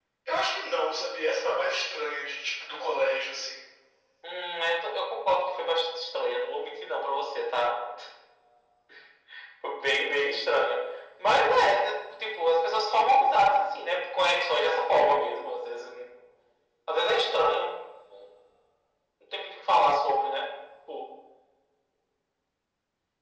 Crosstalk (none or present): none